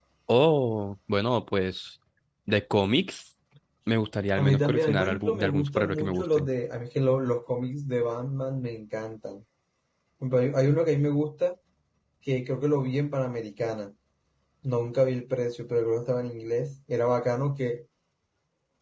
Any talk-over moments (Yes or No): Yes